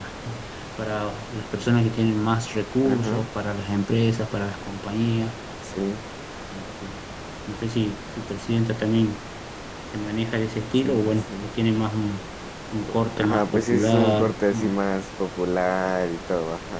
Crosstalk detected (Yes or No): Yes